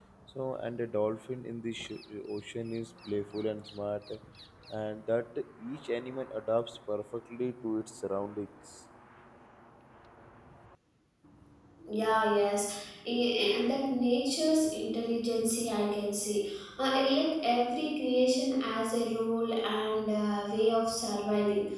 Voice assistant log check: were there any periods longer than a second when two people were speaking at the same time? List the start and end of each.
none

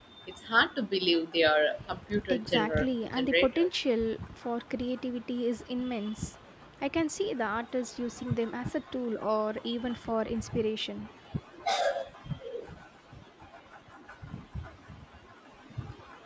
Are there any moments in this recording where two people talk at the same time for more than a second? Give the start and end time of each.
2.3-3.7

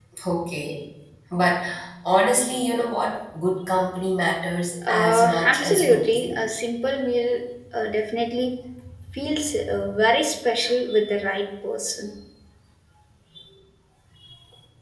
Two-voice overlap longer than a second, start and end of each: 4.9-6.4

